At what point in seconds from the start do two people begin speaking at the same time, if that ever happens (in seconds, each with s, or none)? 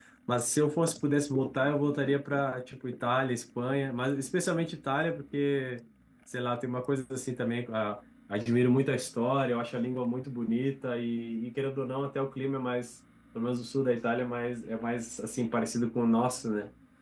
none